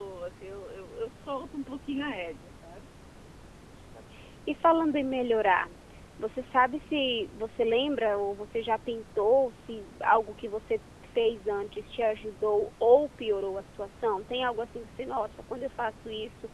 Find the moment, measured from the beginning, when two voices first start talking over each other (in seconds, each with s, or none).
none